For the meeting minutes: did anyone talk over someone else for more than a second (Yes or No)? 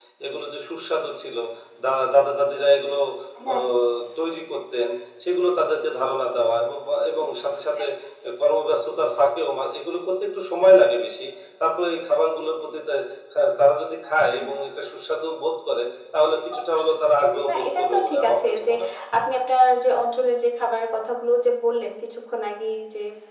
Yes